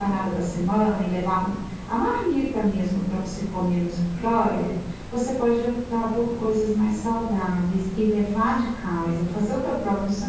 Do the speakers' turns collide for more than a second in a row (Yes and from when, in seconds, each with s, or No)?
No